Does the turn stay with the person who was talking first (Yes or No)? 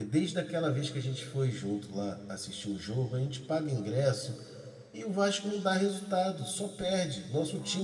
No